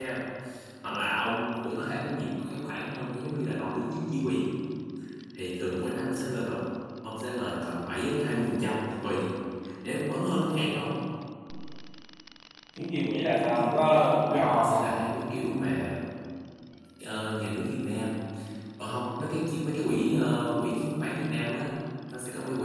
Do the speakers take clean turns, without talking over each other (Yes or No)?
No